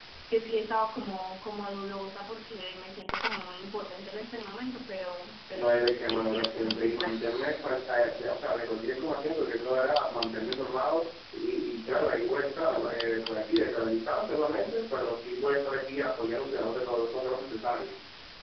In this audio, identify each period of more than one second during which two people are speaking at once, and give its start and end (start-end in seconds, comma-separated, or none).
5.5-7.3